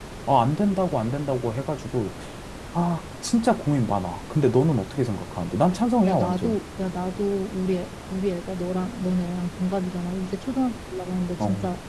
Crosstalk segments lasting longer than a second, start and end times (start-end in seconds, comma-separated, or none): none